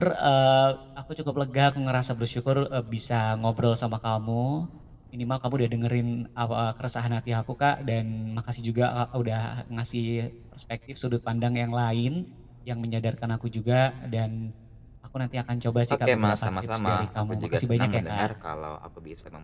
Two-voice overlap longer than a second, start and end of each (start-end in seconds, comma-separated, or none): 15.9-18.3